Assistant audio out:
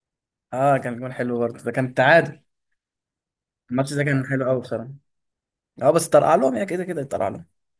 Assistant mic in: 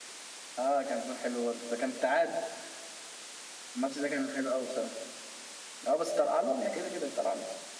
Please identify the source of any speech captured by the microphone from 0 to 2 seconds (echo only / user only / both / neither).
echo only